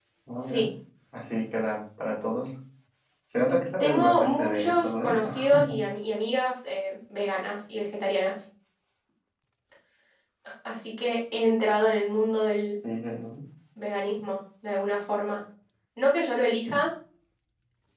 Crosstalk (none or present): present